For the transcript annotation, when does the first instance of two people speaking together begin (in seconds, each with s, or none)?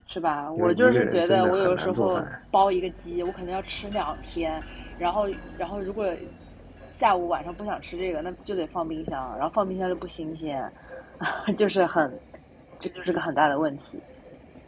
0.6 s